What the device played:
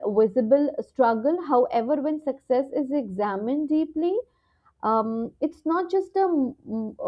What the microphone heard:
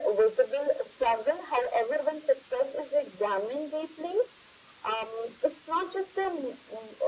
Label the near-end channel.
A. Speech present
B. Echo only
B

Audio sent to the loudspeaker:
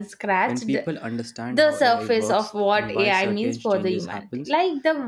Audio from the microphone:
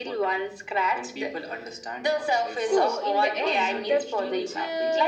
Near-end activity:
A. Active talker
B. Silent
A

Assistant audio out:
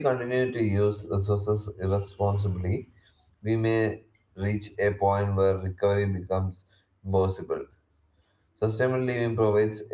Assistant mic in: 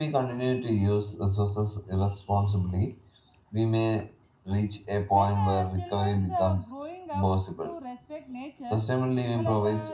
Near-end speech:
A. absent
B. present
B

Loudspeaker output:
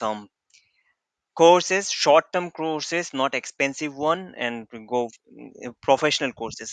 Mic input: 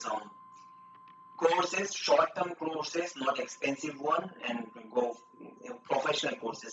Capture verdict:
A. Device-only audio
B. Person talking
A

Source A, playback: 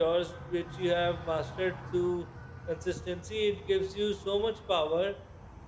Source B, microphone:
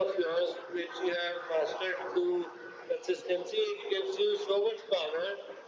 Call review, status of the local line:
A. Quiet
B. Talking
A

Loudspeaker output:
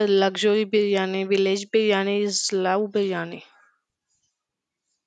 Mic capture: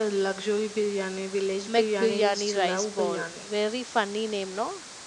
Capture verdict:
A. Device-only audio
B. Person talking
B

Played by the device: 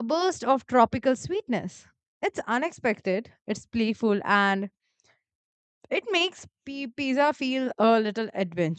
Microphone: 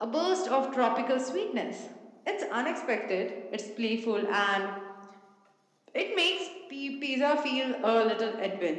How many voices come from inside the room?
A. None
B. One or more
B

